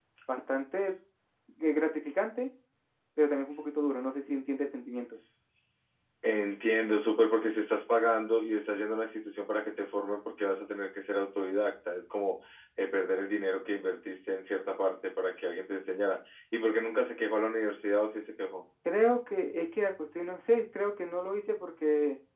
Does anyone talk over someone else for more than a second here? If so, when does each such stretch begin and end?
none

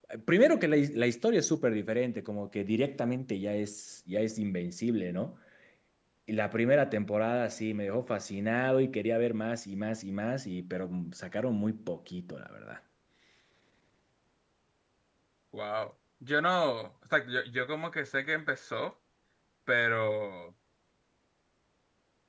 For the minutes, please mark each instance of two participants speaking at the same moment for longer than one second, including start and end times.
none

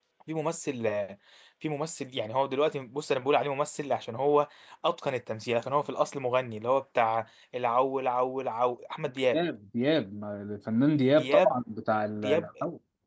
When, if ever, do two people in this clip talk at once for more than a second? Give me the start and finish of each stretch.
none

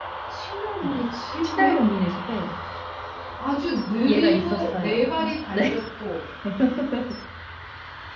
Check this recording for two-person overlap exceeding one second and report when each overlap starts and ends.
4.1-5.8

